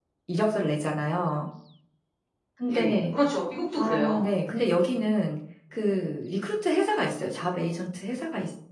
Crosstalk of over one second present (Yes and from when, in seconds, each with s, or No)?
No